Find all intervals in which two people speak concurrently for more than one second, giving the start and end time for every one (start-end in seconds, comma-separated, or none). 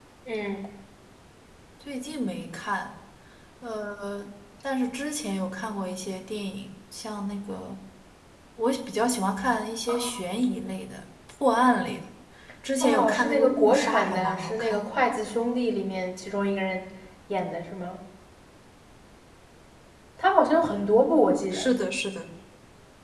12.8-14.9